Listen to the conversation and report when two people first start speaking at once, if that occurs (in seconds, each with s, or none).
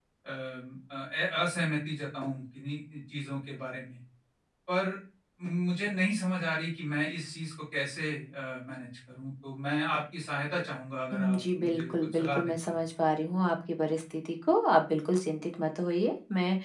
11.1 s